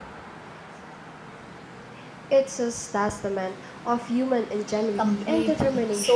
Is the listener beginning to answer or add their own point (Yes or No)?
Yes